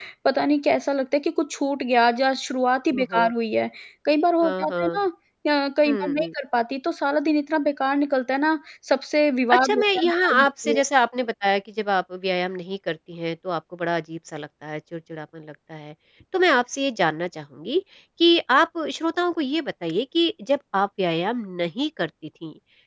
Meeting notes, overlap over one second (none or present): present